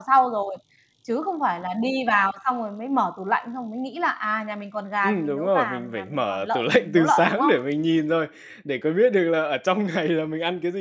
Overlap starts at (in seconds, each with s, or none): 5.0 s